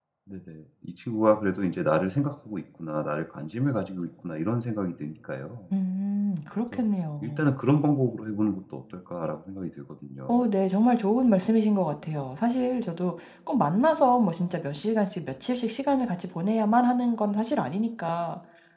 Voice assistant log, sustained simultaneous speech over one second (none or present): none